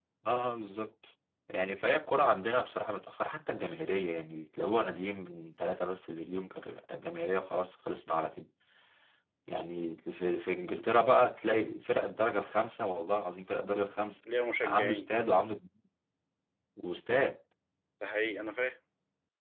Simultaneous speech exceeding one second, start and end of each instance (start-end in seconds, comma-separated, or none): none